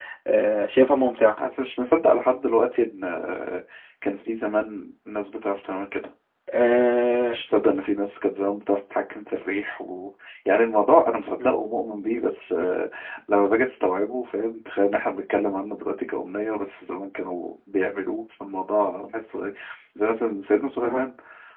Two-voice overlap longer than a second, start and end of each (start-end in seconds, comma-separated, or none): none